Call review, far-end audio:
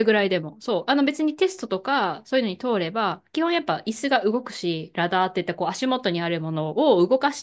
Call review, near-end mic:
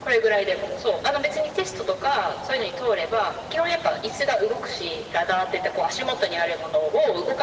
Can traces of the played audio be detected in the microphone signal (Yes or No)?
Yes